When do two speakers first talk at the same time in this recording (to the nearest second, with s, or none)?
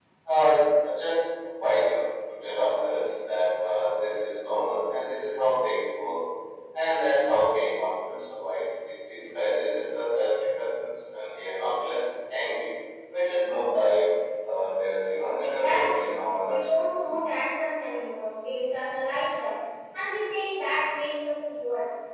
15 s